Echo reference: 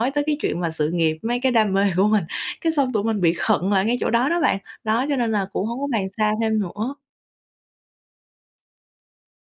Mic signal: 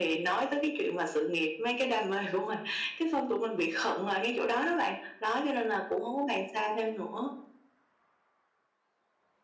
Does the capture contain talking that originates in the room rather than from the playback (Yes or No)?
No